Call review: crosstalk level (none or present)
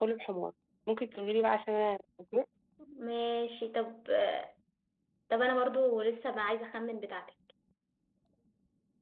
none